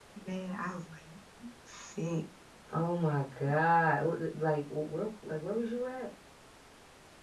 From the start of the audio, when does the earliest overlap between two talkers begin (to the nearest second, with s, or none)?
none